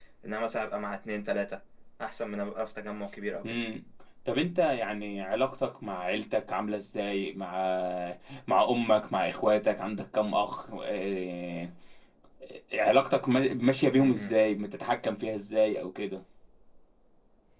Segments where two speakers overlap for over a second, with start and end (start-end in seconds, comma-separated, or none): none